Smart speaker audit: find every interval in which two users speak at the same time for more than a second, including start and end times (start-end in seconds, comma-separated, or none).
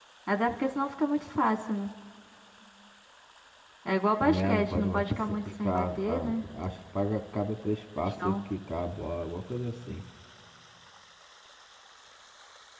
4.2-6.4